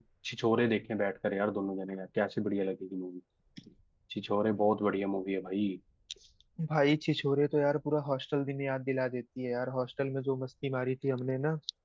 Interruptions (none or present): none